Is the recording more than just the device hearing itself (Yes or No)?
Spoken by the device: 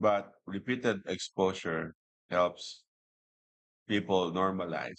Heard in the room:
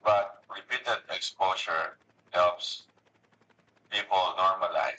No